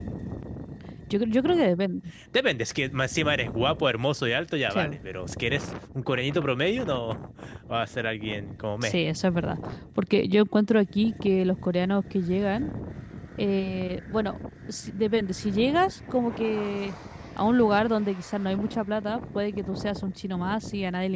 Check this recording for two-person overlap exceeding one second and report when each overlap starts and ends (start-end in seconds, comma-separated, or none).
none